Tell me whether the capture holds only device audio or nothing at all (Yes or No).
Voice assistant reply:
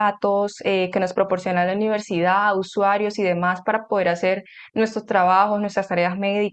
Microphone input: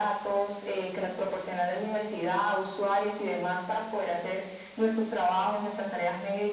Yes